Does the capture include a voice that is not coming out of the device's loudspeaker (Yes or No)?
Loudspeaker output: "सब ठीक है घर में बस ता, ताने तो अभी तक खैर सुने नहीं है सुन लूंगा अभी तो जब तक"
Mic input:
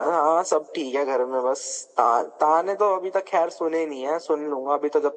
No